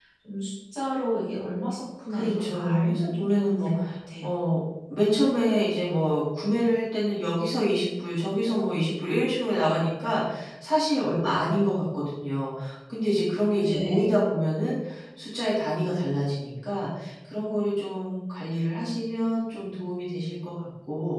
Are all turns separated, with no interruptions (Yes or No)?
No